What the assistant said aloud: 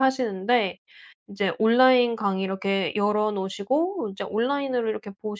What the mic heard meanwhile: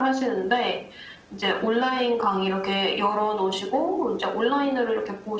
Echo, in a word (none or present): present